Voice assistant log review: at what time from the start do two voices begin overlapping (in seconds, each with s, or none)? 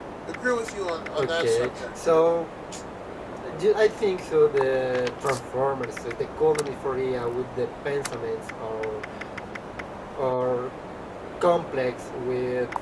1.2 s